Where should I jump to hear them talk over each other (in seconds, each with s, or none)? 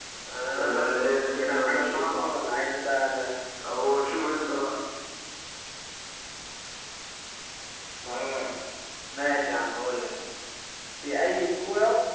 0.6 s